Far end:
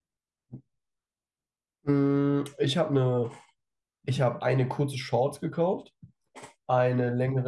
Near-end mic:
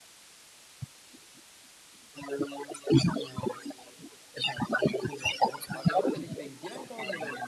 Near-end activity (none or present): present